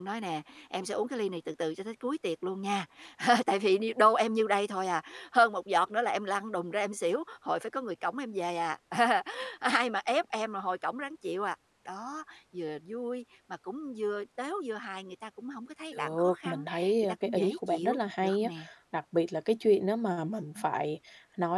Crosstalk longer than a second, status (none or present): present